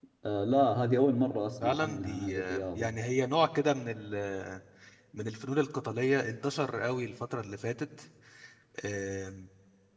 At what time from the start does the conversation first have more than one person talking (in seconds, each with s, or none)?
1.6 s